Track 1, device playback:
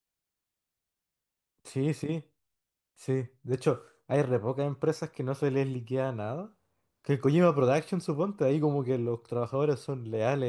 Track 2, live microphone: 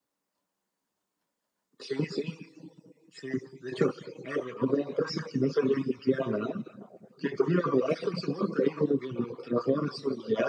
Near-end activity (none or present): none